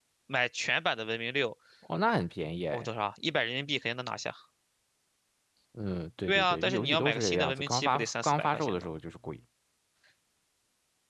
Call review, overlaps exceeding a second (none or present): present